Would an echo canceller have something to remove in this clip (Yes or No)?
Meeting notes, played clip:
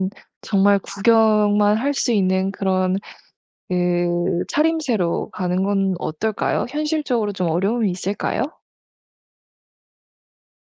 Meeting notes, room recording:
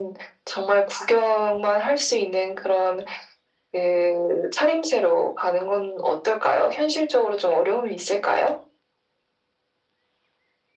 Yes